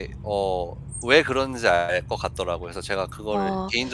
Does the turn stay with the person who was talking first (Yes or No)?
No